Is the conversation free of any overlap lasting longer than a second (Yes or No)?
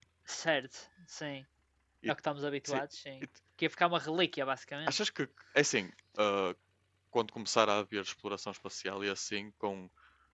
Yes